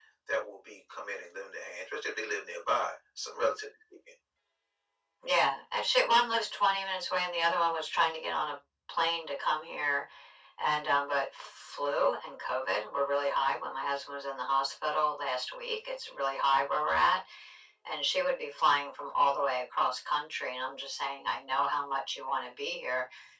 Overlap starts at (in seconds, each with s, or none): none